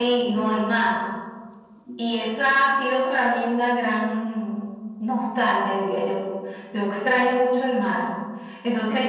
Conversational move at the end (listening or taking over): listening